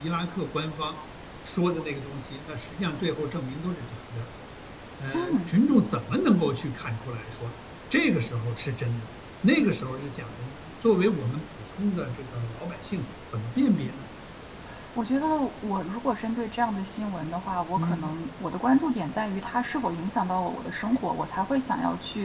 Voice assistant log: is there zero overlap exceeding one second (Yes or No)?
Yes